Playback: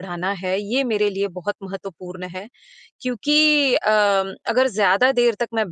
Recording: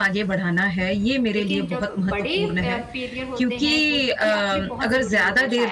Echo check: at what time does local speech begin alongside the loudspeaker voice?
1 s

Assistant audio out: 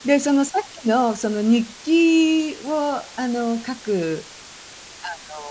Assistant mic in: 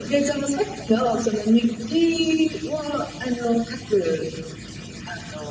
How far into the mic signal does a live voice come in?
none

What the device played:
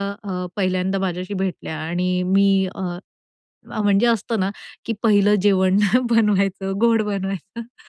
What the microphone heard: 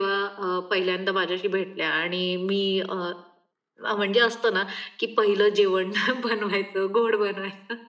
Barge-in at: none

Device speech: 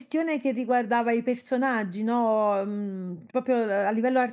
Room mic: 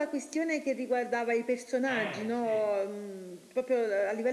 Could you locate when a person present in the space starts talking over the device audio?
2 s

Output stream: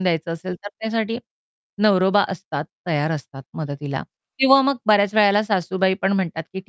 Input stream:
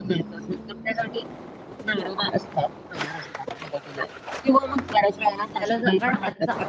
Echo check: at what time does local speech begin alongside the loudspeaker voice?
6 s

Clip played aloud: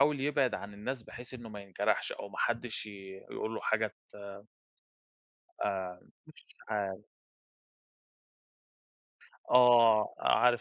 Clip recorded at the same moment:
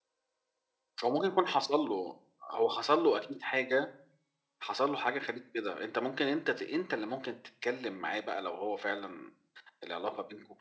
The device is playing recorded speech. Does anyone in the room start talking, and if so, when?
1 s

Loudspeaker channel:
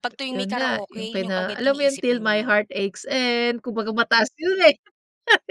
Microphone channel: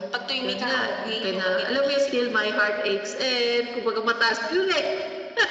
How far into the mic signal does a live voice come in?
none

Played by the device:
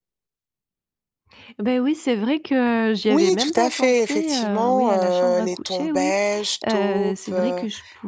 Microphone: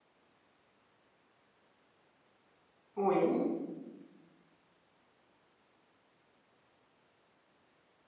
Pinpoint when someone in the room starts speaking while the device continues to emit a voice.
3 s

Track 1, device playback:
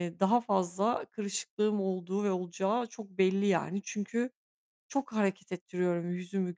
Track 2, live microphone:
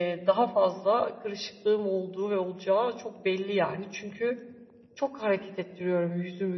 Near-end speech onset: none

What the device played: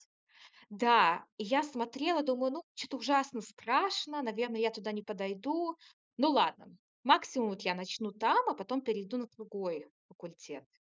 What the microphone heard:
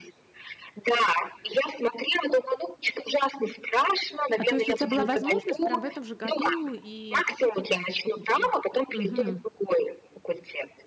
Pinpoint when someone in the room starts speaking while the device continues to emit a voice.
4 s

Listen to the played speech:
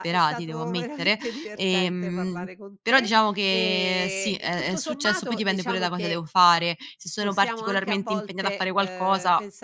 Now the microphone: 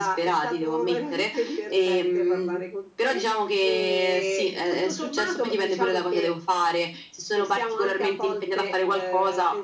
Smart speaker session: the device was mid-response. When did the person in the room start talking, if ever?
none

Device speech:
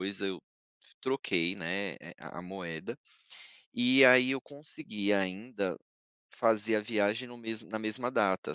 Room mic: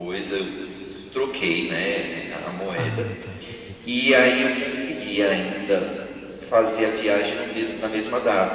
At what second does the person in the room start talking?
3 s

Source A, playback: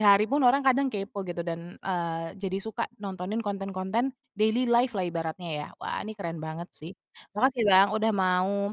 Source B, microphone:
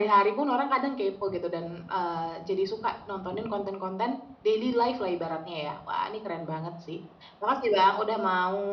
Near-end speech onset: none

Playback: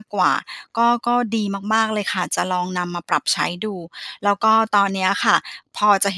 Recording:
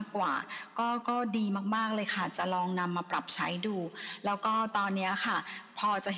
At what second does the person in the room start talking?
none

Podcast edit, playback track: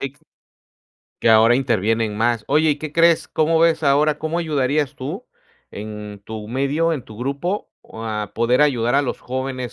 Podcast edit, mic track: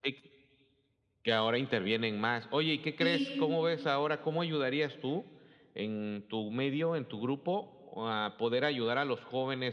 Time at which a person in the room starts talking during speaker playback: 3 s

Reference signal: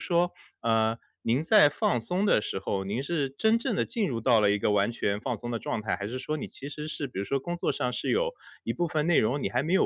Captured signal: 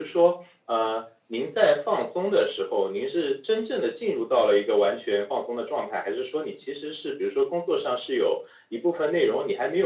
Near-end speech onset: none

